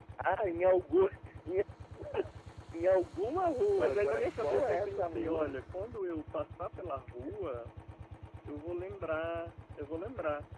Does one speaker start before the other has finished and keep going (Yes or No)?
Yes